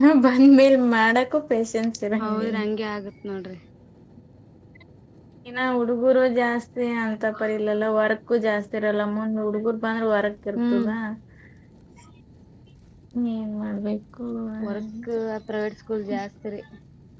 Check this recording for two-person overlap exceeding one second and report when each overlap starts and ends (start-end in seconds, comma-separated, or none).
none